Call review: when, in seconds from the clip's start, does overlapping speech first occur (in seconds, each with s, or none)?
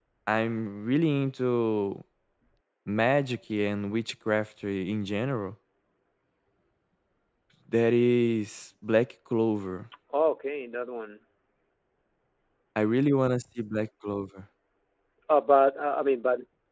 none